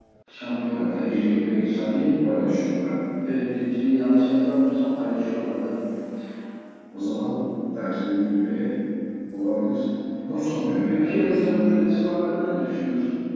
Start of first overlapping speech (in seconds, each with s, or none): 0.7 s